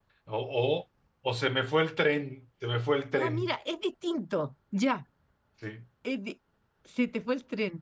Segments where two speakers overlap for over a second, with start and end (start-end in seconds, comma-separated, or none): none